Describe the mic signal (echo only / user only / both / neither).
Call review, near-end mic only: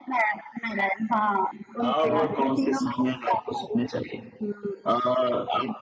both